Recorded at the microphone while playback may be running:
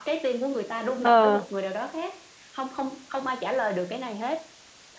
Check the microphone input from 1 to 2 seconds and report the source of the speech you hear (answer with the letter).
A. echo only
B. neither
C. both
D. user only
C